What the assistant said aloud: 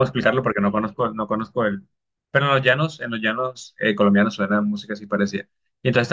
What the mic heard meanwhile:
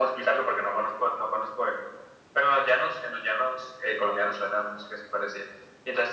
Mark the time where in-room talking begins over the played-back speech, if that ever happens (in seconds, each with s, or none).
none